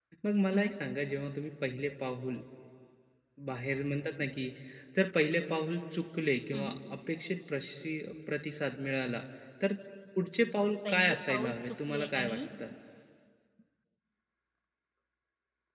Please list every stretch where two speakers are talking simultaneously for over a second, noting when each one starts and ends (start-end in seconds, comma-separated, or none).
10.6-12.4